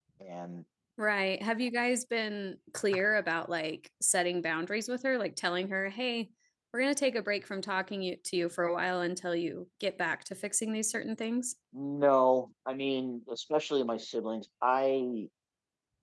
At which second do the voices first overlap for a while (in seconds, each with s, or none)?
none